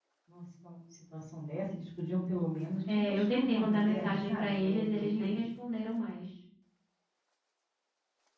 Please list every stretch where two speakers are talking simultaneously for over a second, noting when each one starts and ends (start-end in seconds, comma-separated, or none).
2.9-5.5